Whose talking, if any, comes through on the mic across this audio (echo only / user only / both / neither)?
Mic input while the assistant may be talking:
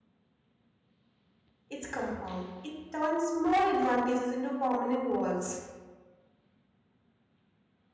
user only